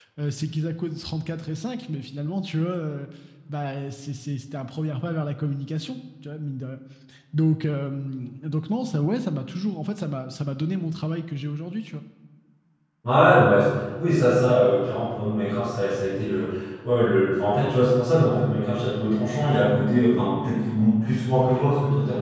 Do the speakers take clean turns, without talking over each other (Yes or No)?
Yes